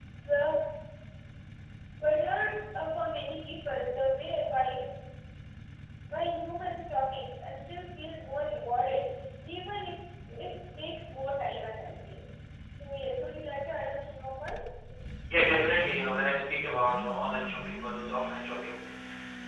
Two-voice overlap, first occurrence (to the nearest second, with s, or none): none